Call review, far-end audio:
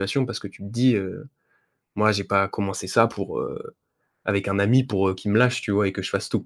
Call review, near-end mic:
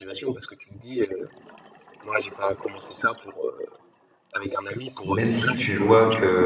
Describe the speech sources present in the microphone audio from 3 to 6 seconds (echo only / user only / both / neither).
both